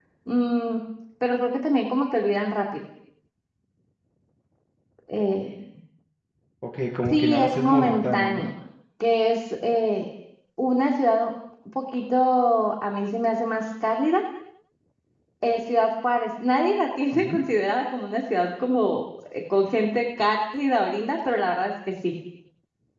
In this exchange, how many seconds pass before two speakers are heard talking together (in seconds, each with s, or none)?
7.1 s